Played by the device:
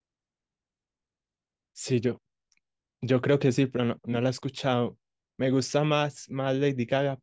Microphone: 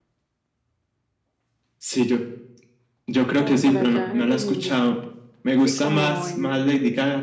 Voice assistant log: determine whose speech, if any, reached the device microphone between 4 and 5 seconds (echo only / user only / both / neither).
both